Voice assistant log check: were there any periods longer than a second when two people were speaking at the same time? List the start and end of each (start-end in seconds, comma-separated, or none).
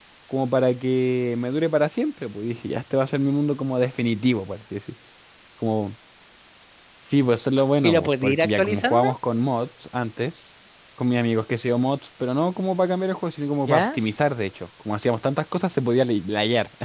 7.8-9.1